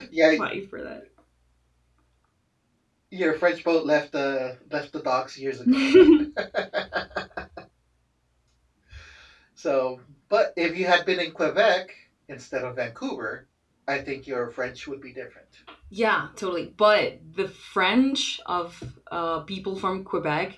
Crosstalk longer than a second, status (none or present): none